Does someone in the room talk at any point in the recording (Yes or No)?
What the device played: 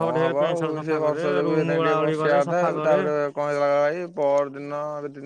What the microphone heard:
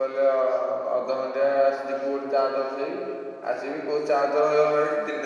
Yes